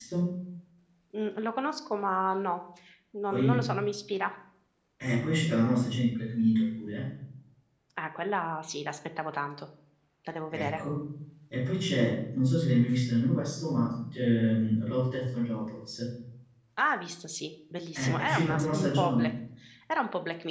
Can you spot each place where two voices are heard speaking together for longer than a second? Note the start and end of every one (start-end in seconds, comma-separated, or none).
18.0-19.3